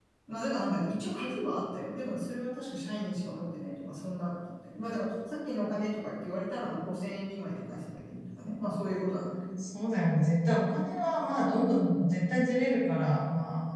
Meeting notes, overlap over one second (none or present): none